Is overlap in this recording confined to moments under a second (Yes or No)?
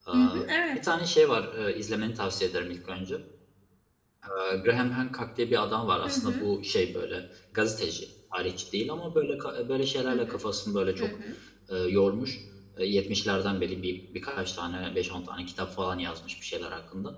Yes